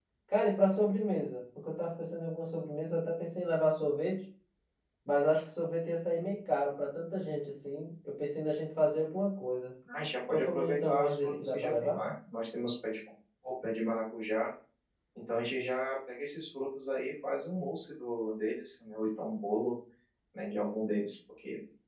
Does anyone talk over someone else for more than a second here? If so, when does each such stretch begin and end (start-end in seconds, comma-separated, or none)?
10.3-12.0